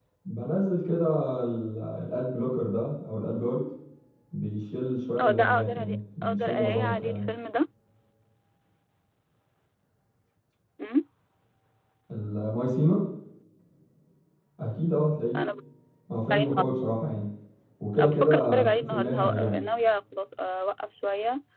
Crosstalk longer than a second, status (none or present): present